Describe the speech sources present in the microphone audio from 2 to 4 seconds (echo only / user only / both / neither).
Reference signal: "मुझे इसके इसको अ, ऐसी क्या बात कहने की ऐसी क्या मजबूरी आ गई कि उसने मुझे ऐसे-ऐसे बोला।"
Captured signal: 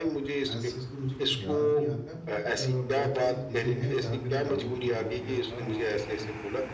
both